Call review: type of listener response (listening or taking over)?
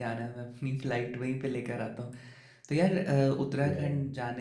listening